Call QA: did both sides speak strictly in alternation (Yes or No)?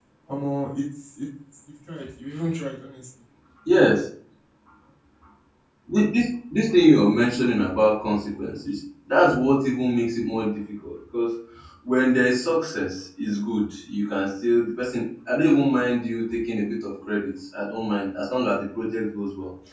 Yes